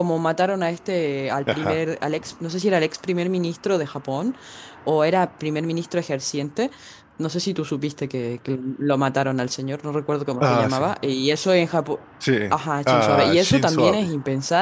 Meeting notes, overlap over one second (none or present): present